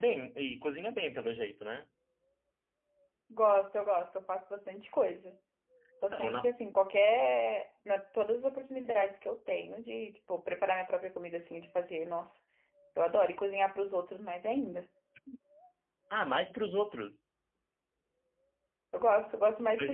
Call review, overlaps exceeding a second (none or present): none